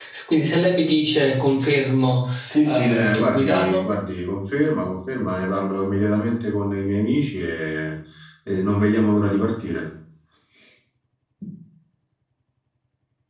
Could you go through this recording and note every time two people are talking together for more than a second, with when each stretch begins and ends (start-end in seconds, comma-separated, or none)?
2.6-3.8